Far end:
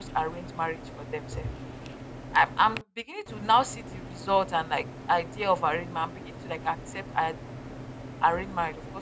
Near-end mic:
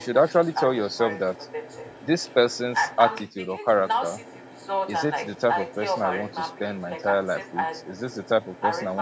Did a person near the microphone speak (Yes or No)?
Yes